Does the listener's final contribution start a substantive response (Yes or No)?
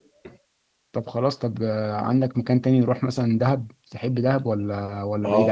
Yes